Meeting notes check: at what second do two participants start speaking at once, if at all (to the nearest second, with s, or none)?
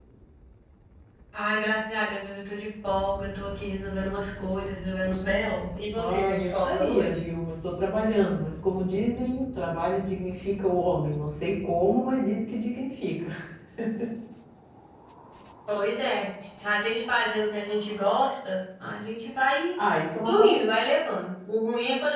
6 s